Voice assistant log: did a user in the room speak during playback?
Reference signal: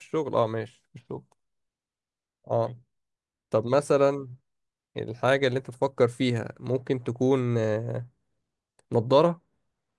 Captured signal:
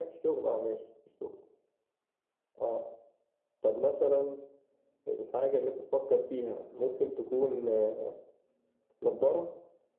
No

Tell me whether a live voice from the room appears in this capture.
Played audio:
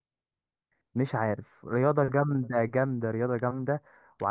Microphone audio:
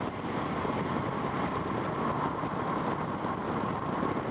No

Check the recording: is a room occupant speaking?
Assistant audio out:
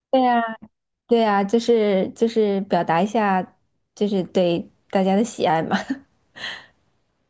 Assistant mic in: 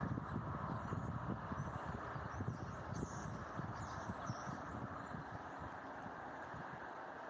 No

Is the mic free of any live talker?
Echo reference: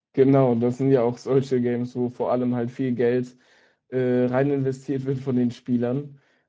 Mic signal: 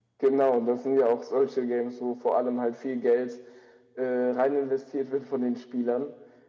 Yes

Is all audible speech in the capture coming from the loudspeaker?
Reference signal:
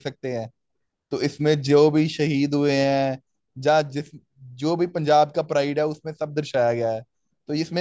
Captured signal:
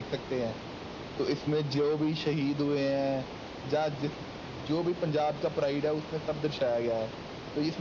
Yes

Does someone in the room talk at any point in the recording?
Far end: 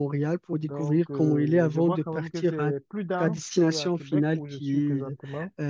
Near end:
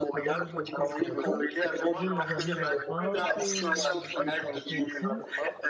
Yes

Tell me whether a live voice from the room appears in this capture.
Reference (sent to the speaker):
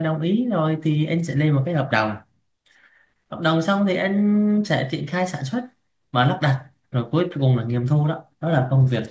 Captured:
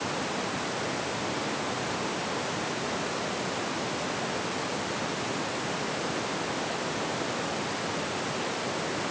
No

